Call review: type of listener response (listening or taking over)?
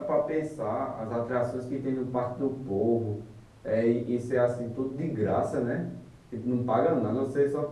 listening